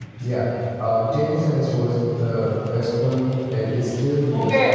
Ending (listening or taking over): taking over